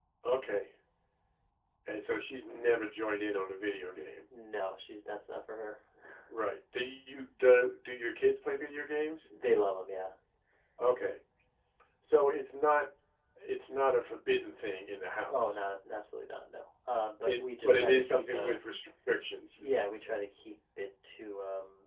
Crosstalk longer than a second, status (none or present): present